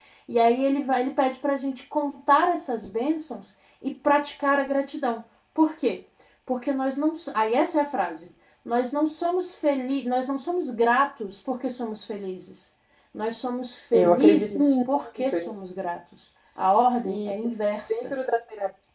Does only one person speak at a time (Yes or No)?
No